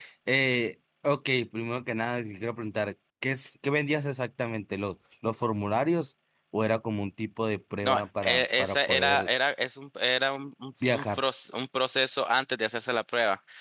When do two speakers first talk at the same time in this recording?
7.8 s

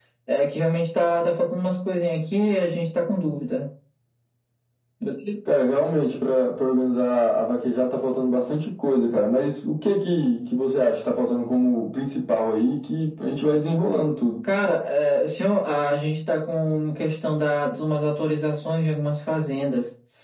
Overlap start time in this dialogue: none

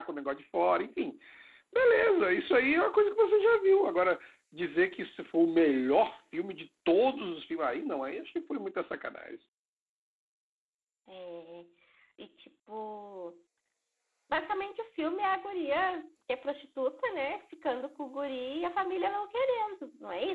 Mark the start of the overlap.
none

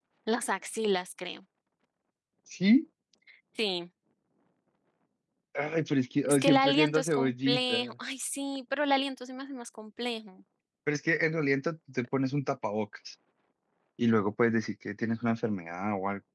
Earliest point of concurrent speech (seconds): 6.2 s

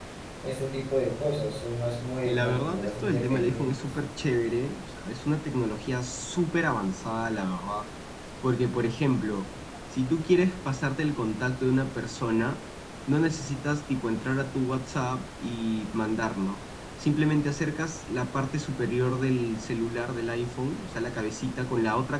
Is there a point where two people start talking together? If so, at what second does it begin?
2.2 s

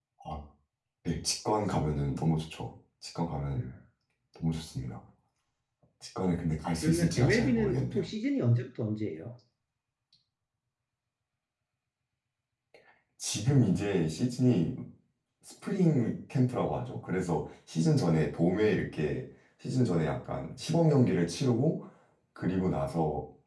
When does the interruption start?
6.8 s

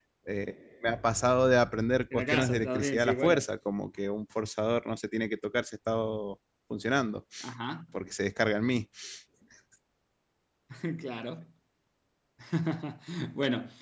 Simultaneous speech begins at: 2.1 s

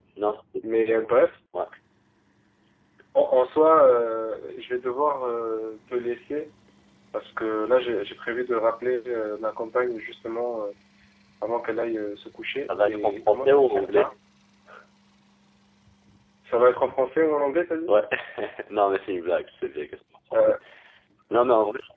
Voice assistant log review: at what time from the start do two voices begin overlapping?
12.7 s

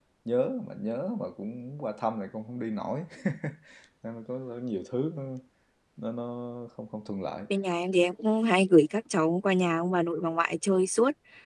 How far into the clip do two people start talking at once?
none

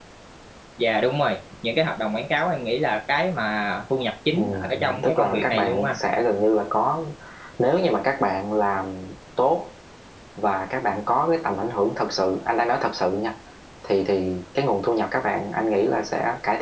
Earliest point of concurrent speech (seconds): 4.3 s

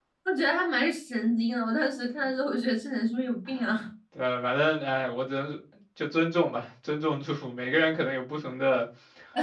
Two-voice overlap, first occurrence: none

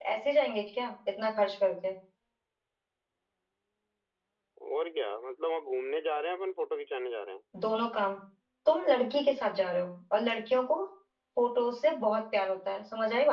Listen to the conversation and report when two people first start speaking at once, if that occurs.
none

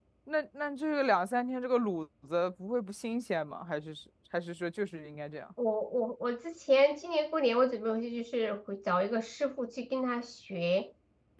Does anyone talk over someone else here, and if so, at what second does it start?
none

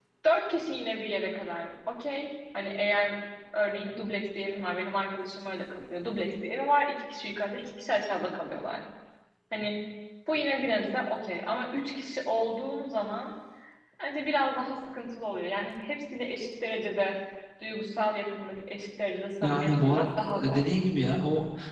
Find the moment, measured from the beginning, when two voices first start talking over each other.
19.4 s

